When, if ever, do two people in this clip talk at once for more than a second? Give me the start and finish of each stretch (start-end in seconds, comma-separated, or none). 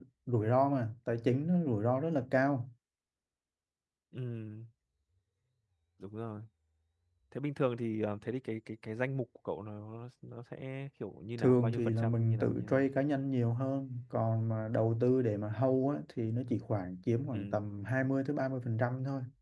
11.4-12.9